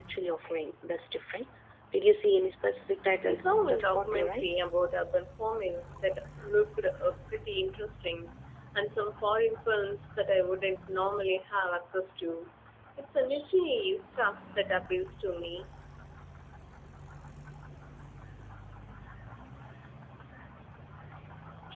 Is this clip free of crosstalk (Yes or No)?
No